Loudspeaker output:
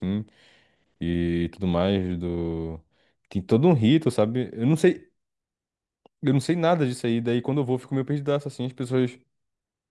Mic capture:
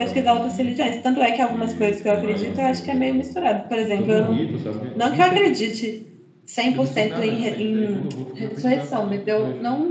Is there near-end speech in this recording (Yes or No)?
Yes